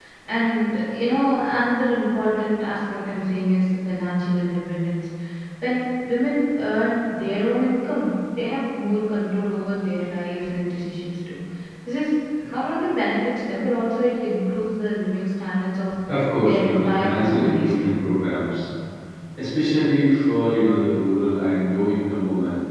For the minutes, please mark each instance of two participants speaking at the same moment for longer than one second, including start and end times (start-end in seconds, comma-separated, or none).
16.4-17.9